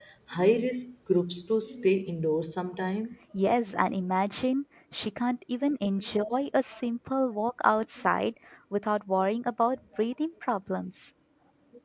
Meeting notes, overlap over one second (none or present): none